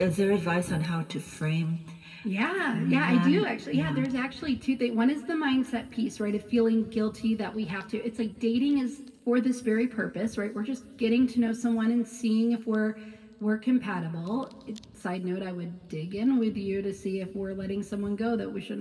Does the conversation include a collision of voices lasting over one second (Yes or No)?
Yes